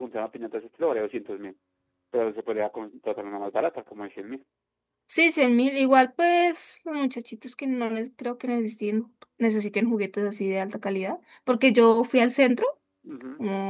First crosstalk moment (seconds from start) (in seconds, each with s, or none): none